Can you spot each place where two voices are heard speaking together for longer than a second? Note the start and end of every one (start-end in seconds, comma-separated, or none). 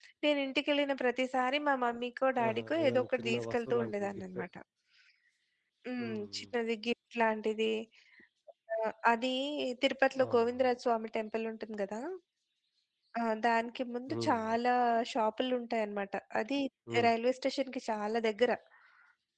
2.4-4.4